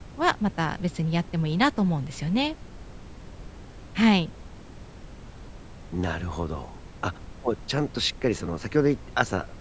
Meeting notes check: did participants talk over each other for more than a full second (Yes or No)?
No